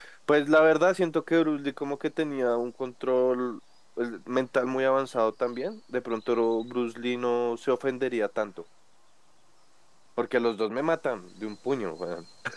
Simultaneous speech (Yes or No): No